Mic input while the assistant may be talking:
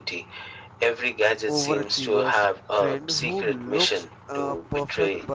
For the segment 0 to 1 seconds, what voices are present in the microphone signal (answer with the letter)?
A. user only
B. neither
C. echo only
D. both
C